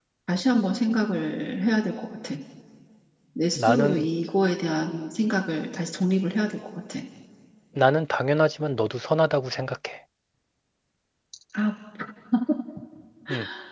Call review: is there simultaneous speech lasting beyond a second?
No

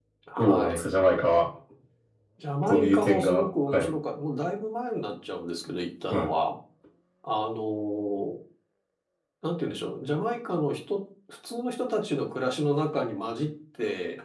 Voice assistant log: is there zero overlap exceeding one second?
No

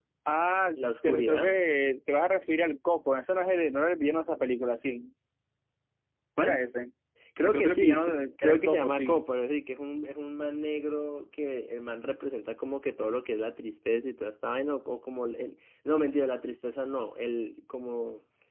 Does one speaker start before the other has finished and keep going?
Yes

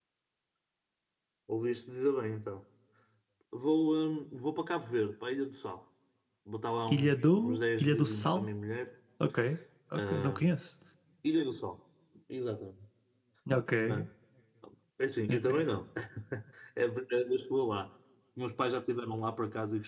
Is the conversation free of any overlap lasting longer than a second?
No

